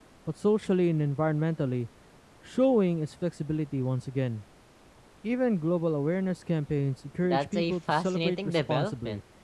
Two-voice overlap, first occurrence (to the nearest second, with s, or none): 7 s